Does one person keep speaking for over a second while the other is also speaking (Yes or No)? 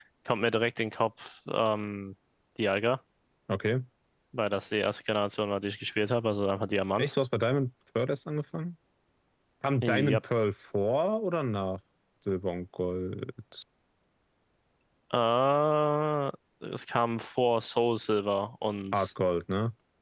No